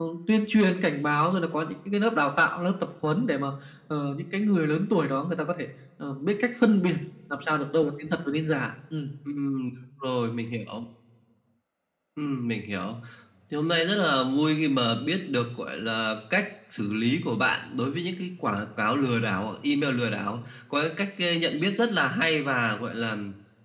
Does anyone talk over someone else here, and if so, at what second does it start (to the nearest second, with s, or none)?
none